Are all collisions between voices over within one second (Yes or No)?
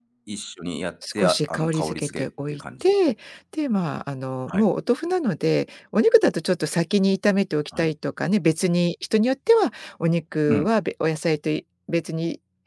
No